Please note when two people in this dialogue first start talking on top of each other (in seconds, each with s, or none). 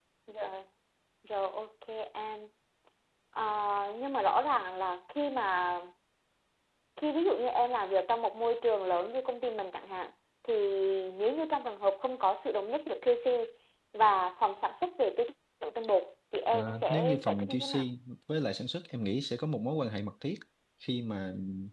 16.5 s